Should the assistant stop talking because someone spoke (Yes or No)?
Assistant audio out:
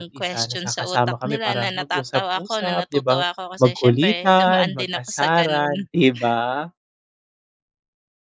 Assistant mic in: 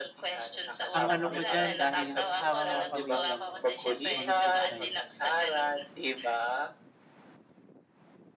Yes